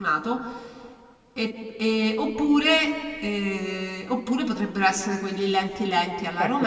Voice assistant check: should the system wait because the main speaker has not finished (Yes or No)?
No